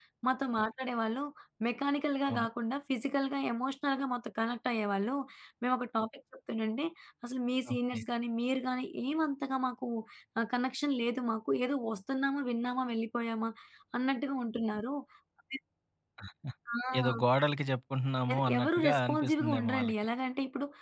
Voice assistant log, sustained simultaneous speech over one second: present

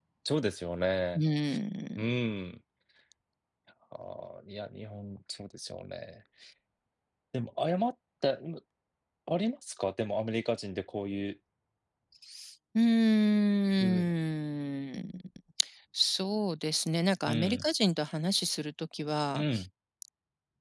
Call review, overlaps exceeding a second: none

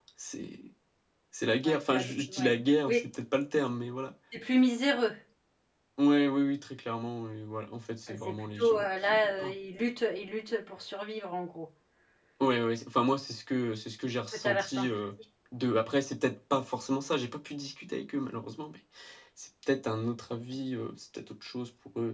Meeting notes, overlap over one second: present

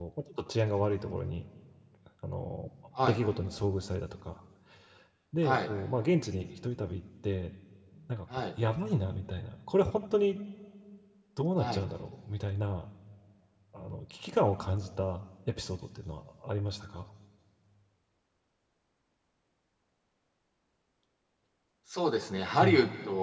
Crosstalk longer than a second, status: none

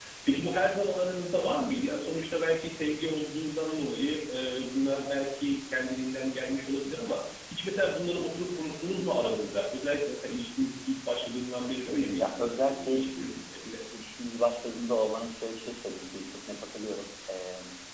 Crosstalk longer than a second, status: present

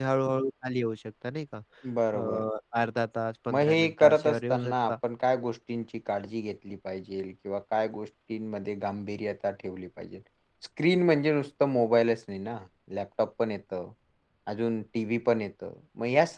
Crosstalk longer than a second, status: present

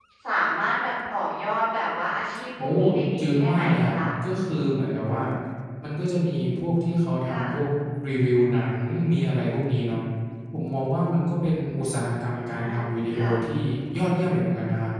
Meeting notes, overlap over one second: present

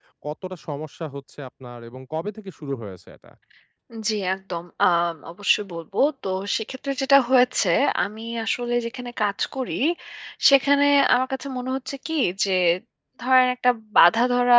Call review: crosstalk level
none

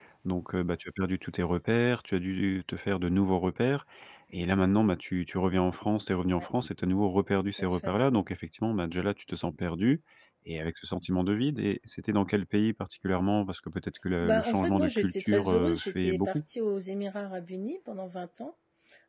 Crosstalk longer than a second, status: present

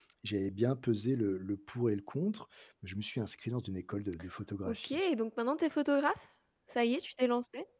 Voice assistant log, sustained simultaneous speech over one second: none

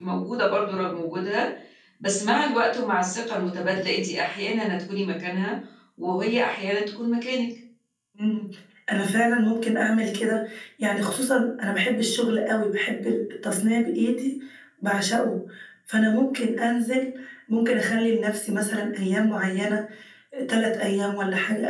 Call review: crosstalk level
none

